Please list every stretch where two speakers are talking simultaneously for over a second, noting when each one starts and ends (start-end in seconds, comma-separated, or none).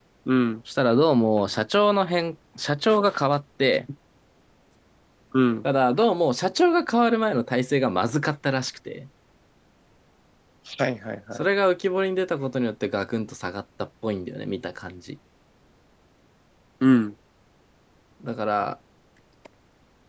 none